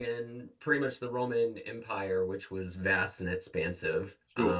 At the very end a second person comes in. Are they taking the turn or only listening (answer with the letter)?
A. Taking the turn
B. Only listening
B